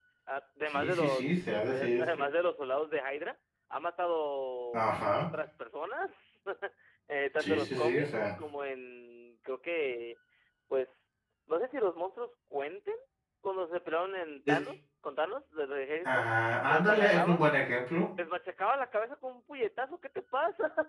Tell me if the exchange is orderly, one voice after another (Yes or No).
No